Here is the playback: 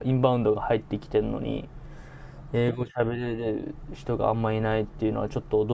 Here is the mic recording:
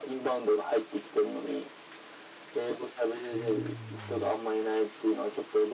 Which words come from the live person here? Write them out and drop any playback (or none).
うーん、